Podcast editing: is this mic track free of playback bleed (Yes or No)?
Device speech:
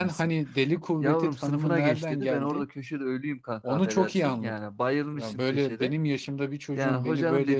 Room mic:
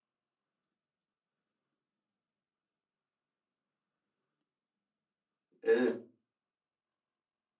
Yes